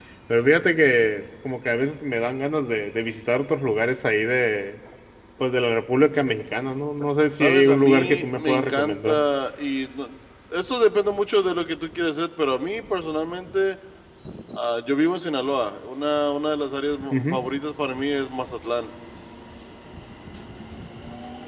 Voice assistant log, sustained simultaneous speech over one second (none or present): present